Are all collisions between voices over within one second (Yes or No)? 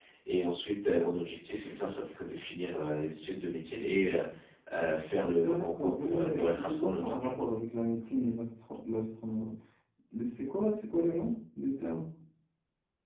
No